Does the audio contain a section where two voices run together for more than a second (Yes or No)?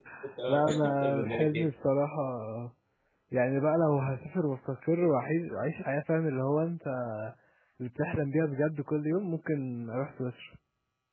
Yes